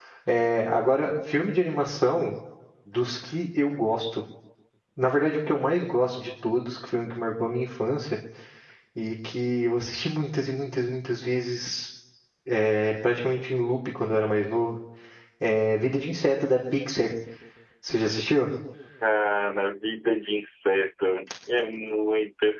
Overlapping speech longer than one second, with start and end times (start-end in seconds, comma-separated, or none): none